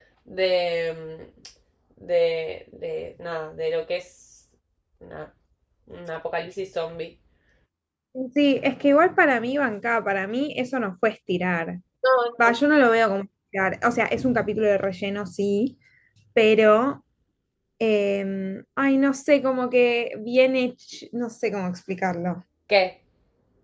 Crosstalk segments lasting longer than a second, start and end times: none

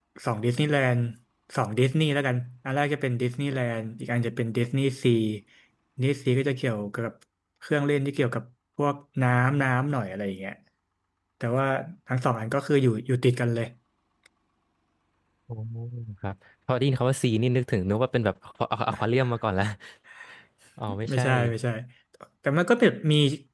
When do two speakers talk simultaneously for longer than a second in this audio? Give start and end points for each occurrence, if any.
none

